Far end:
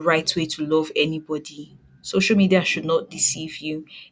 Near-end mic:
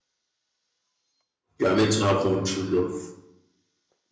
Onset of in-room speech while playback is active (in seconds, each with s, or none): 1.6 s